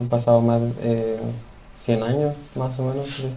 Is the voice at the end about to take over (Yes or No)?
Yes